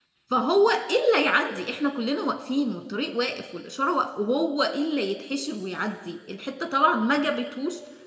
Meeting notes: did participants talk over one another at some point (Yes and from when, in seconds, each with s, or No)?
No